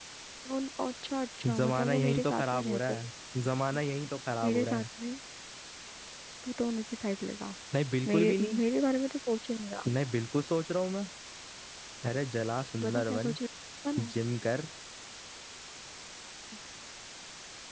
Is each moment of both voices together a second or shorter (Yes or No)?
No